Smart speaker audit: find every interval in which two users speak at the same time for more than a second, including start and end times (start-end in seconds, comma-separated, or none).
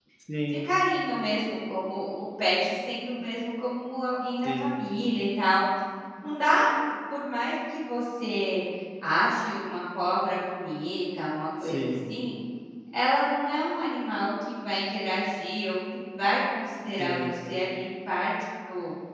none